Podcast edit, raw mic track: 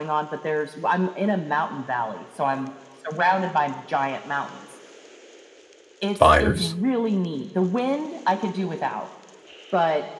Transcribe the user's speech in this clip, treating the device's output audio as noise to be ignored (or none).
Fires?